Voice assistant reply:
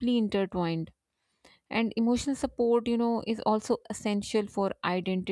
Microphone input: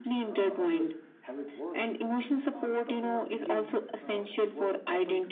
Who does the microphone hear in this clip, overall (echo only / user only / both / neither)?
both